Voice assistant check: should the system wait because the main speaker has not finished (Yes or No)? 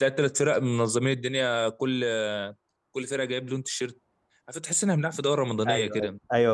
No